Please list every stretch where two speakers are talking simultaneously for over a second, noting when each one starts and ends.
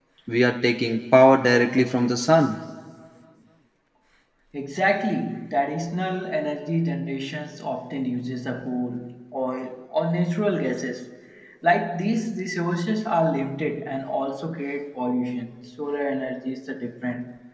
none

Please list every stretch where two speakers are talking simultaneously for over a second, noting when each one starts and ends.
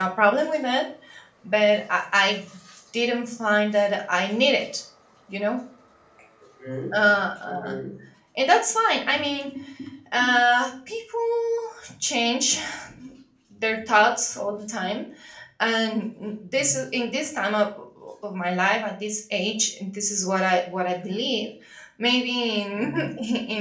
none

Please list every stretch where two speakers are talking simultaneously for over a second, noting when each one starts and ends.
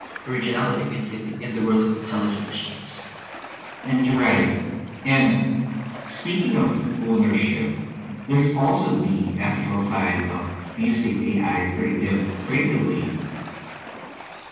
none

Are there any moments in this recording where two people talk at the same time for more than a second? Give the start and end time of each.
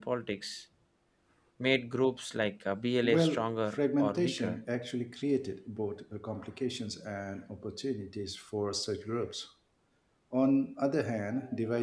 3.0-4.6

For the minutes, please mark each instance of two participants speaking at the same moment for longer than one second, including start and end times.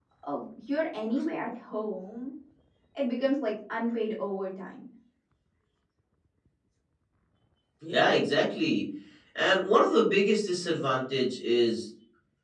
none

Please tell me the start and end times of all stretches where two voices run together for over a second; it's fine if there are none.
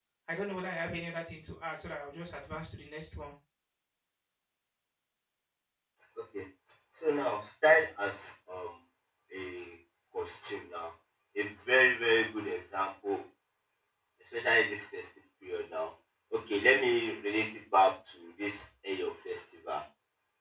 none

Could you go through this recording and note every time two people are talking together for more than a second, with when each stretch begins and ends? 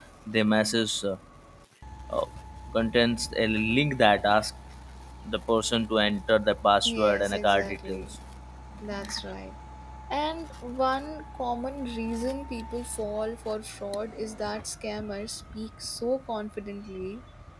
6.8-8.2

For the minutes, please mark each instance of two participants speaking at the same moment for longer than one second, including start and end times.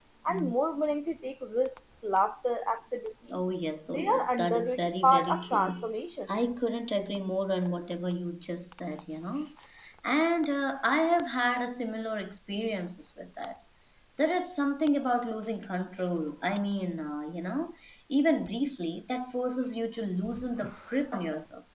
3.9-5.9

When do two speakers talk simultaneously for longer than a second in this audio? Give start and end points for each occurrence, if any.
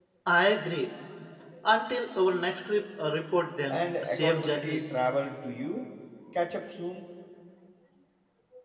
3.7-5.0

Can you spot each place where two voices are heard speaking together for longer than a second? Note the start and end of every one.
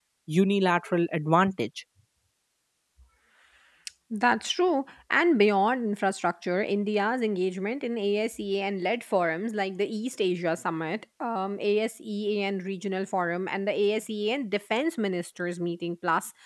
none

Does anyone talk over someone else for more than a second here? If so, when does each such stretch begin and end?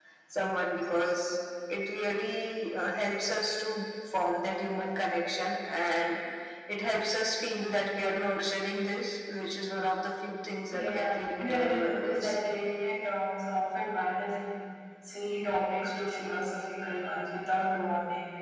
10.7-12.4

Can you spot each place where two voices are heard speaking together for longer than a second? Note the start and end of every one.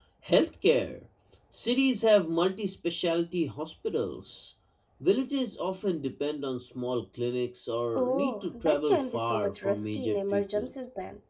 8.0-10.7

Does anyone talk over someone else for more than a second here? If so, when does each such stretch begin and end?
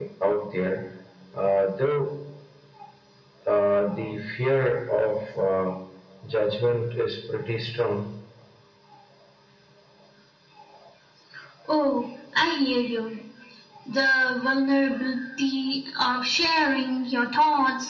none

